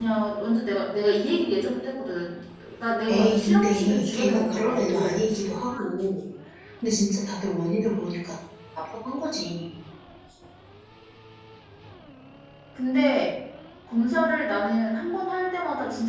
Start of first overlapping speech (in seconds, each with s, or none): 3.1 s